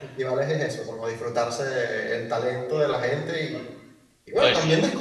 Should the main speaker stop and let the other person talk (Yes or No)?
No